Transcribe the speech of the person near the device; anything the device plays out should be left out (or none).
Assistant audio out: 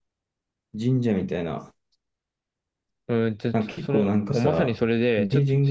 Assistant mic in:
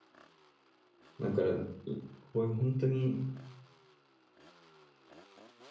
だから、いこういう本当に